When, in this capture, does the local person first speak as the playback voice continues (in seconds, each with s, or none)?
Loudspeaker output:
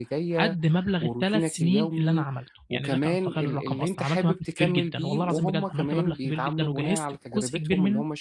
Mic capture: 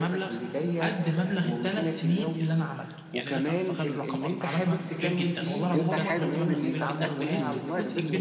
5.7 s